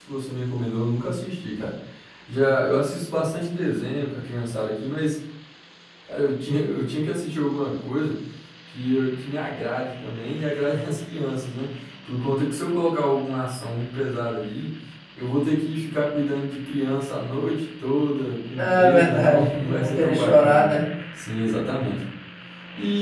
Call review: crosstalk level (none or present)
present